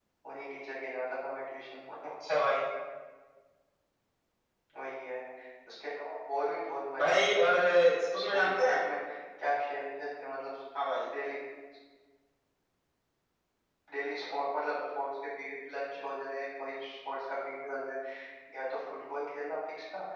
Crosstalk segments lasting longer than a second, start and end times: 7.0-8.8

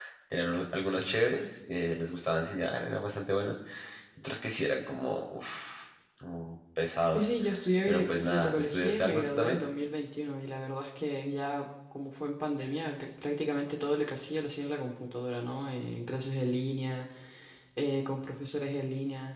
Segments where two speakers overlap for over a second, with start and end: 7.9-9.6

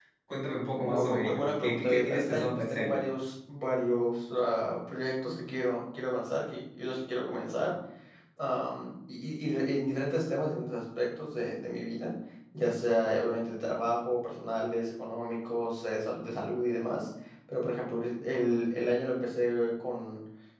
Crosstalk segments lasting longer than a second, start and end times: 0.8-3.0

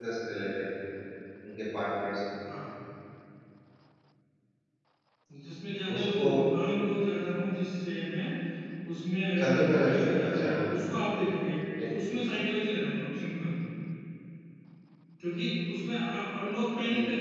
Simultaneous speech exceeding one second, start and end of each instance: 9.4-10.7

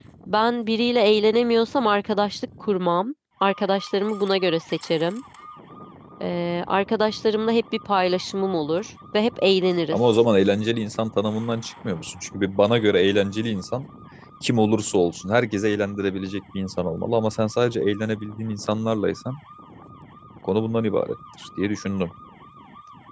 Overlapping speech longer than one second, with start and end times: none

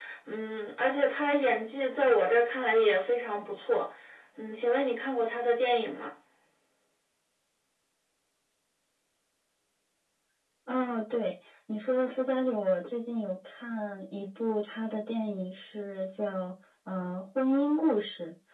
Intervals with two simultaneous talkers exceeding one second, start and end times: none

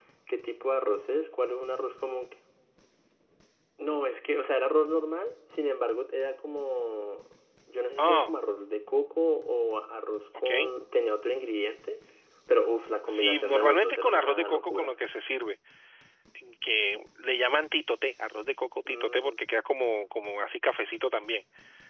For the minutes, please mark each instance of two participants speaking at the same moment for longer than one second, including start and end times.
13.1-14.9

